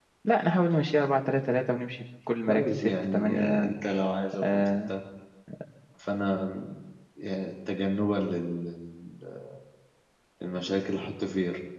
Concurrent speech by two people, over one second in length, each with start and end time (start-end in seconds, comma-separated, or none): 2.5-3.7